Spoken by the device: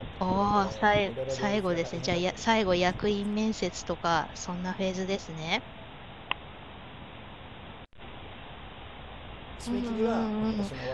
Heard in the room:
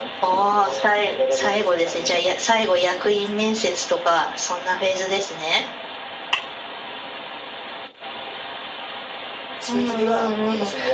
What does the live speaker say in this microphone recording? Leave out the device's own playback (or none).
none